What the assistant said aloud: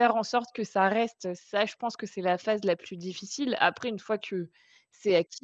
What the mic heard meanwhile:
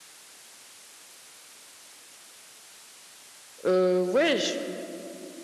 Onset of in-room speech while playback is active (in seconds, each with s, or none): 3.6 s